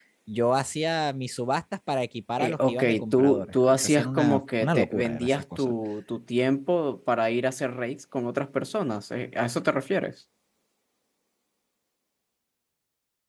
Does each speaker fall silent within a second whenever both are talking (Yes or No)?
No